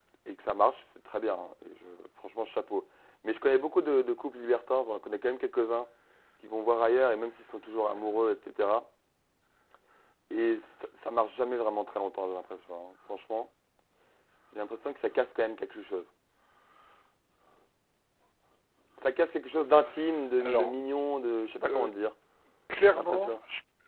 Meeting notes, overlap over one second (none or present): none